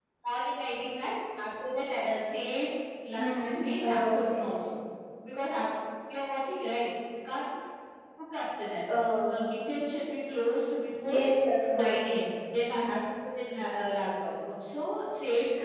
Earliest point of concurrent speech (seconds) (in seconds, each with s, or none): 3.2 s